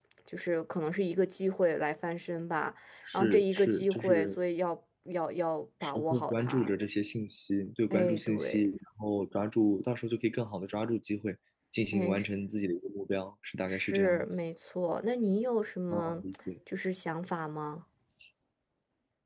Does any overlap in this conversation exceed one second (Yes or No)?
Yes